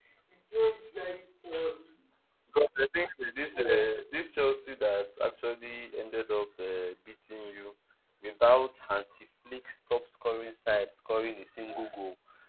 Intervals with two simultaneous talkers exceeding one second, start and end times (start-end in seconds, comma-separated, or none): none